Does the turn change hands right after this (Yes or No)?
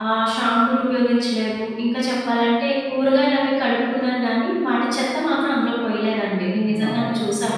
Yes